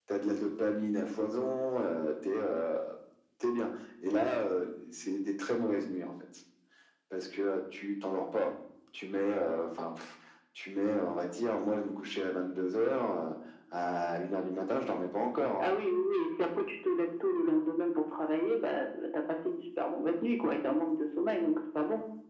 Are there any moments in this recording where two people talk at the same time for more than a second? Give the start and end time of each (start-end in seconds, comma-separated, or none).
none